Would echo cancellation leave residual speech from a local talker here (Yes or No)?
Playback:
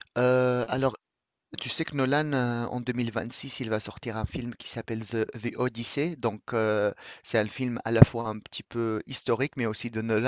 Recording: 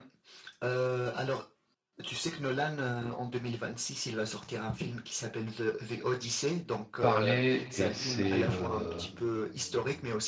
Yes